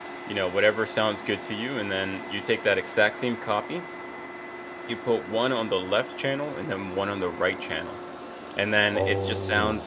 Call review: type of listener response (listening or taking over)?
listening